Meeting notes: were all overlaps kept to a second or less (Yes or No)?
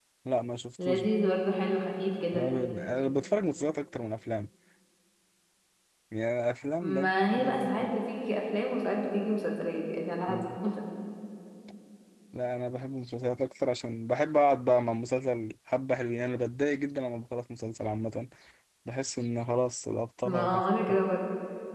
Yes